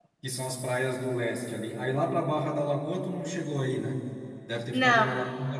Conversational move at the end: listening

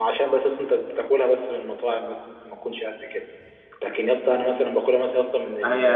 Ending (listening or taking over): taking over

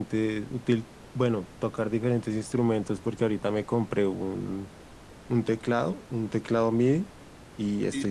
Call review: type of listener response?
listening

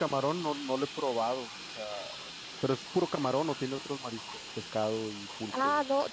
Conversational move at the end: taking over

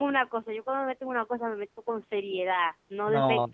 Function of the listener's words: taking over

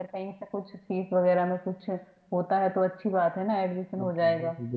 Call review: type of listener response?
taking over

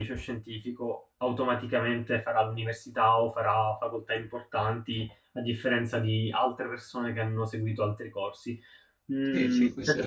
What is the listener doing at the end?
taking over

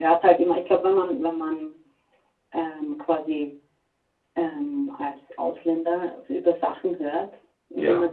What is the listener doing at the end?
listening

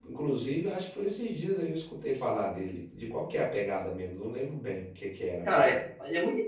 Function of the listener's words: taking over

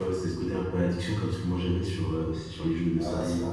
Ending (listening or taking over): taking over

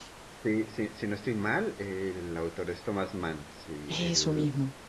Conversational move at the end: listening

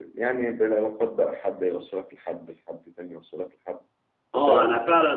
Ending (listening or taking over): taking over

